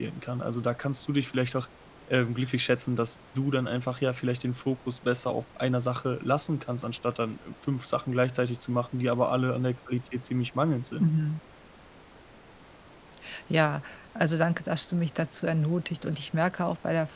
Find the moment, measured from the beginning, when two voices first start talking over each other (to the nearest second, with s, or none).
none